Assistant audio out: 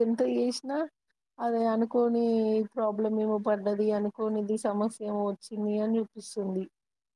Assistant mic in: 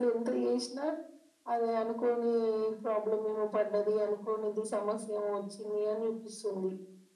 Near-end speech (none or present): none